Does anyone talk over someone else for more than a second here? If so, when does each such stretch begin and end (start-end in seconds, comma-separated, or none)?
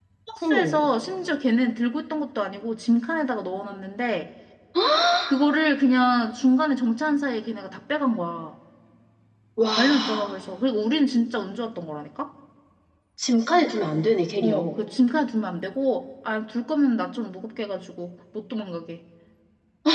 none